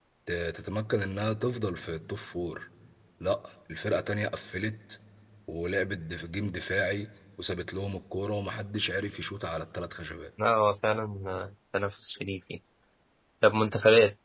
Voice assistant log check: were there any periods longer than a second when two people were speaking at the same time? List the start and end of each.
none

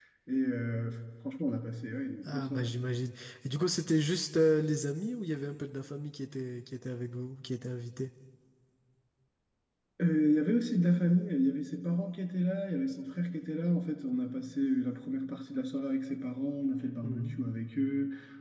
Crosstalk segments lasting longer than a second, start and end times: none

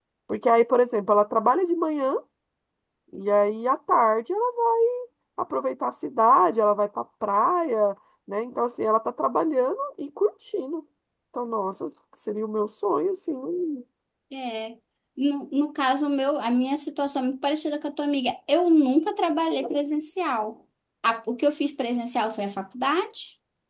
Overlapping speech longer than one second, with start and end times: none

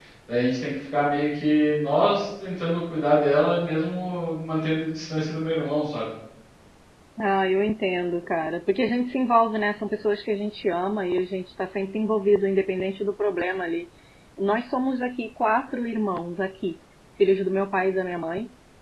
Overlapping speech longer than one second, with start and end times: none

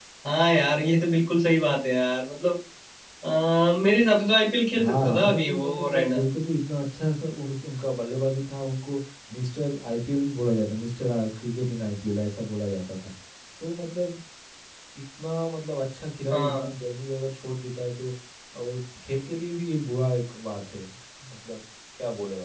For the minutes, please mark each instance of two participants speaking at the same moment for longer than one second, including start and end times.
4.8-6.2

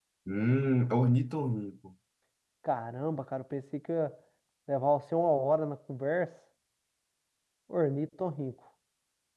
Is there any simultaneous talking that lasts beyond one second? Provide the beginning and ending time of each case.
none

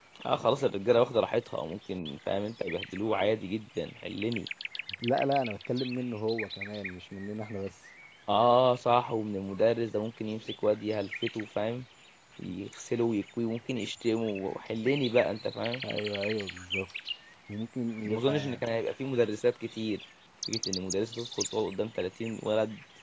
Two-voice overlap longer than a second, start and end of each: none

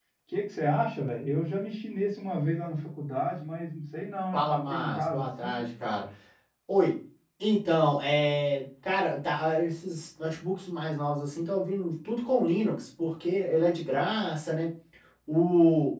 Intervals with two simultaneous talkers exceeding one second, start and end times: 4.3-5.6

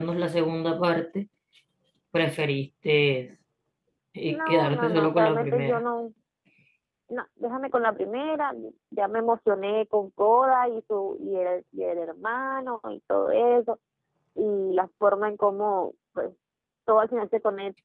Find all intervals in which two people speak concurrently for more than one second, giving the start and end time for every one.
4.3-5.8

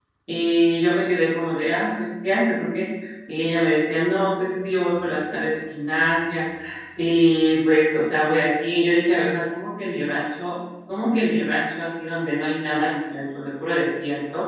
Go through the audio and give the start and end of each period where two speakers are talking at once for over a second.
none

